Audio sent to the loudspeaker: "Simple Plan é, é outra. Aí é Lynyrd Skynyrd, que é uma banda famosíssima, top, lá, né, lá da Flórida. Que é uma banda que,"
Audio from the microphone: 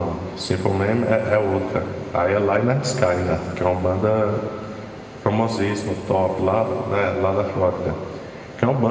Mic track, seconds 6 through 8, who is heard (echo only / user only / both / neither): echo only